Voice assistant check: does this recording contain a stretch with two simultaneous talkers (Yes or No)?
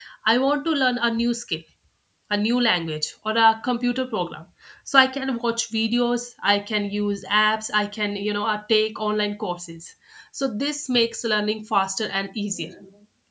No